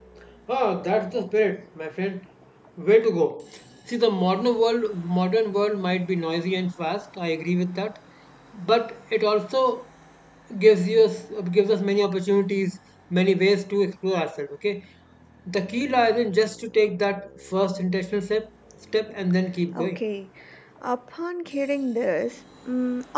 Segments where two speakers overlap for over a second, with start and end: none

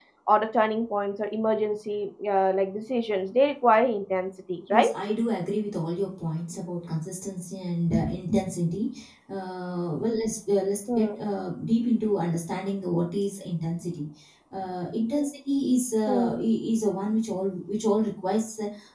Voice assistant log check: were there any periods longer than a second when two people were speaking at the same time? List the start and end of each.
none

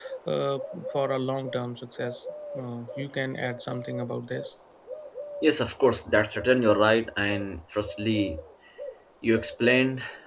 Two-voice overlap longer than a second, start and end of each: none

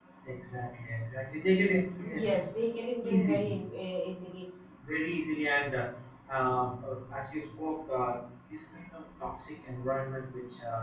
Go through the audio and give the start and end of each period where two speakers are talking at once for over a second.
none

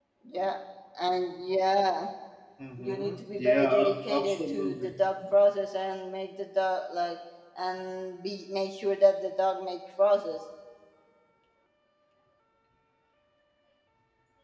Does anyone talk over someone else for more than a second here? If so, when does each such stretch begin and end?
2.8-4.9

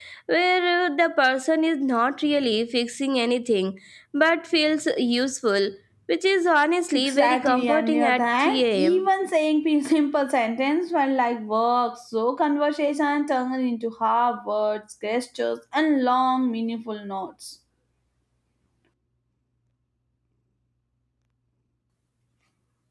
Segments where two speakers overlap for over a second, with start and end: 6.9-9.1

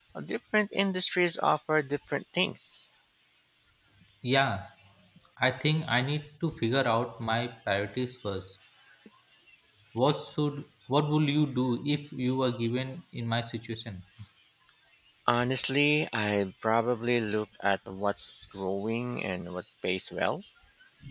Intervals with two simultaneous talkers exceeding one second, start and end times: none

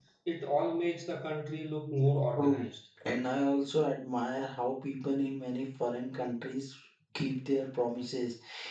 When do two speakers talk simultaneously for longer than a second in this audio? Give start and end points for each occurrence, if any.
none

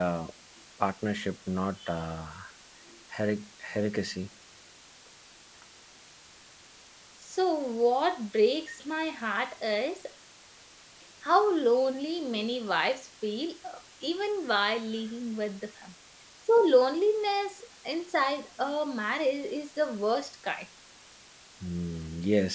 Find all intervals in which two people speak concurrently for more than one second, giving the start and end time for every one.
none

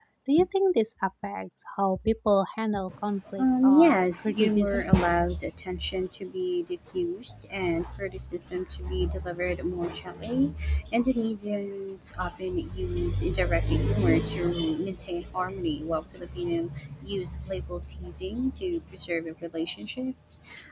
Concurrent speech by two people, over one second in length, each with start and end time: 3.4-4.8

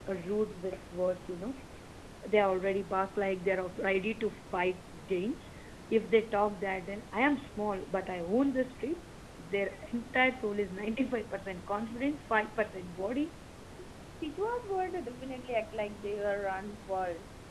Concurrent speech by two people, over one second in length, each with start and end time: none

